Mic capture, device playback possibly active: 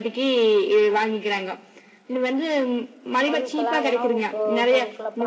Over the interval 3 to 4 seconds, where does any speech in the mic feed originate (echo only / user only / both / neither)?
both